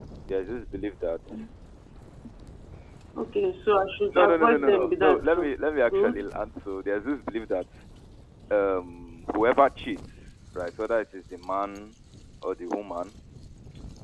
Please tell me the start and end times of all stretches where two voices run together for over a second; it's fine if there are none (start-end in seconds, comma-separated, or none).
4.2-5.5